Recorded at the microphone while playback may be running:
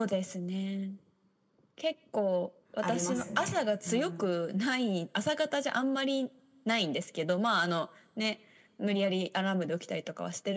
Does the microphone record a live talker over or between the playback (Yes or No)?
Yes